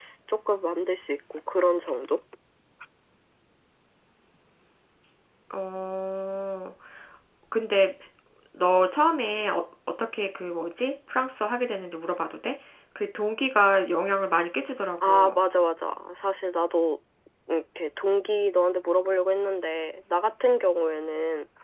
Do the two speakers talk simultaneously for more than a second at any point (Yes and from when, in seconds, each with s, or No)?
No